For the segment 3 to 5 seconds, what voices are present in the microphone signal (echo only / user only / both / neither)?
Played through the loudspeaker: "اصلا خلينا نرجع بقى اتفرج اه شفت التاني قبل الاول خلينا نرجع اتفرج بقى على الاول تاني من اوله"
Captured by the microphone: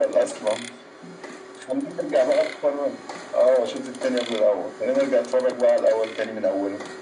echo only